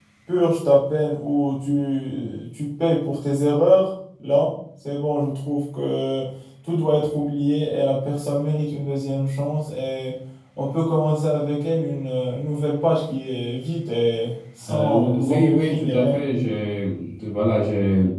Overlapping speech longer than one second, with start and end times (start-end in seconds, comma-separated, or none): 14.7-16.2